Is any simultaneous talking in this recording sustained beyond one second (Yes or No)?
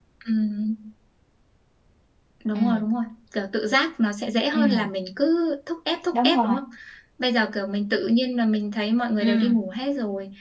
No